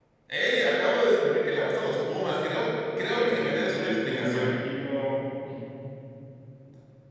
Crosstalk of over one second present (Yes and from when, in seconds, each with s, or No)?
Yes, from 2.9 s